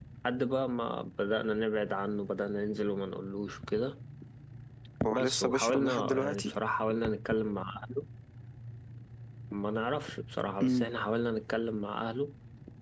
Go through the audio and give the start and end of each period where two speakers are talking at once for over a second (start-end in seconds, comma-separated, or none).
5.1-6.6